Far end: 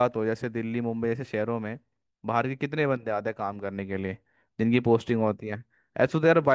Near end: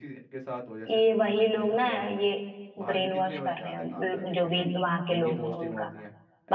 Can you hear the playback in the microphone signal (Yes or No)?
Yes